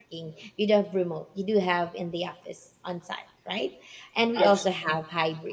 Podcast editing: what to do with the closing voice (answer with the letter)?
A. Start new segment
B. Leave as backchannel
B